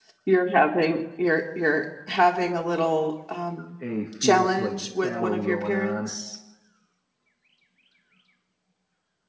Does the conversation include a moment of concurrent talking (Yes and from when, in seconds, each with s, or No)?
Yes, from 4.2 s